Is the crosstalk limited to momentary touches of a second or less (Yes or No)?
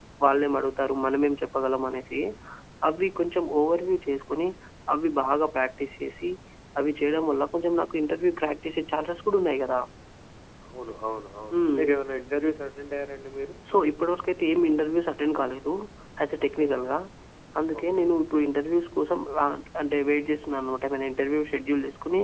Yes